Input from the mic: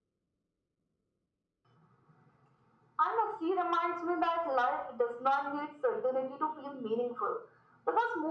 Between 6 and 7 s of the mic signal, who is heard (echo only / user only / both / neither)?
echo only